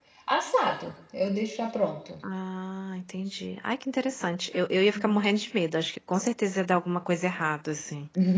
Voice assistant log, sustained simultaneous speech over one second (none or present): none